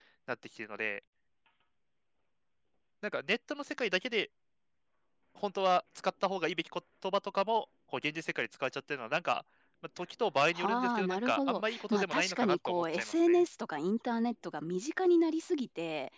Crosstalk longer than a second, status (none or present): present